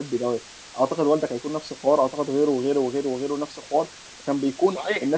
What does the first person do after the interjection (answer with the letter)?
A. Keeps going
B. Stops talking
A